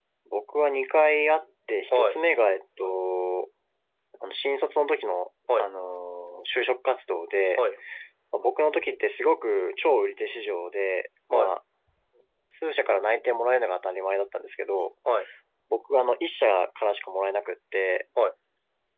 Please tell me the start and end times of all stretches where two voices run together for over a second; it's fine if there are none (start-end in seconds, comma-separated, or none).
none